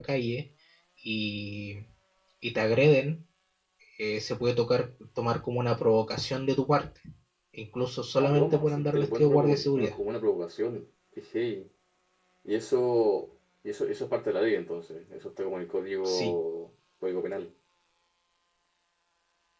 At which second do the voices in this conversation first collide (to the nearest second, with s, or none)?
8 s